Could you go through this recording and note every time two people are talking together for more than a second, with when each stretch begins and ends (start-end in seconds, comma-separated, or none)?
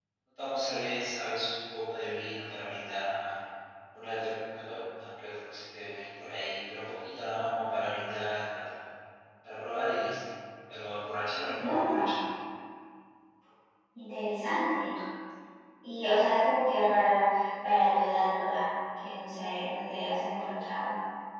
none